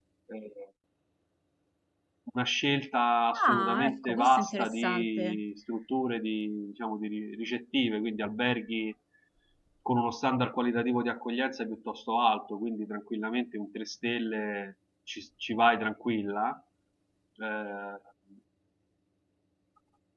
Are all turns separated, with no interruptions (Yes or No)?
No